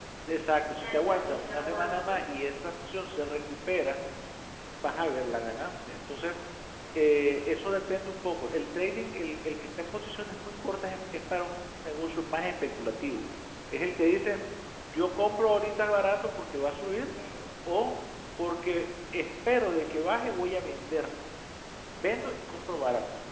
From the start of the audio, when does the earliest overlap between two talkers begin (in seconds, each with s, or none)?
0.8 s